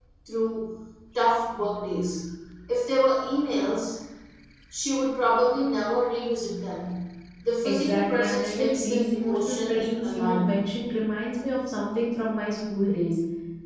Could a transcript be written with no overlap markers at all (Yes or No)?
No